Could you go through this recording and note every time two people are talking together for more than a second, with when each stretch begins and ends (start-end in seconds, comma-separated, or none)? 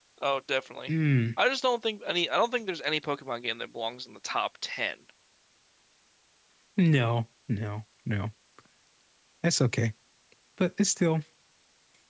none